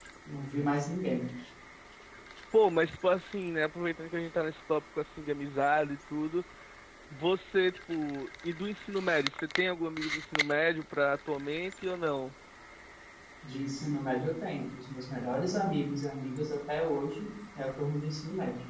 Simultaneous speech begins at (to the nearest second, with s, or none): none